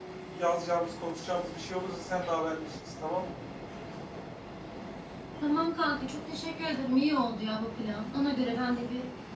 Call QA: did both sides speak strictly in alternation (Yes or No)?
Yes